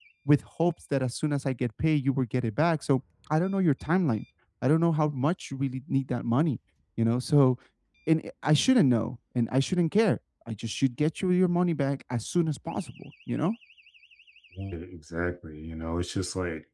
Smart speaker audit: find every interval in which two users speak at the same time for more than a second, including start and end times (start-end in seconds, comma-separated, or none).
none